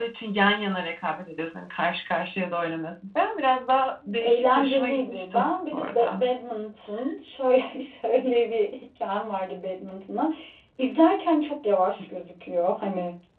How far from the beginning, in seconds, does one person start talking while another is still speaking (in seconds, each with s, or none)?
4.2 s